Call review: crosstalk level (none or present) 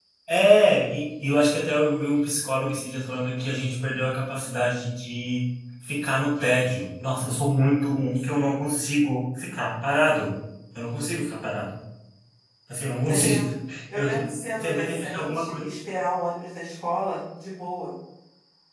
present